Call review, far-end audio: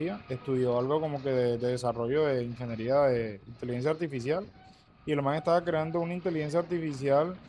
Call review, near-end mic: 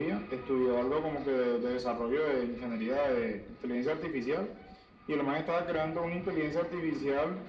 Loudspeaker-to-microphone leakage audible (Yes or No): Yes